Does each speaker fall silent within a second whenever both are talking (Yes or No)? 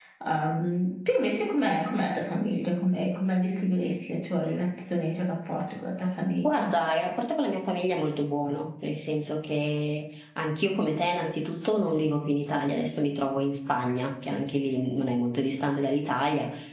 Yes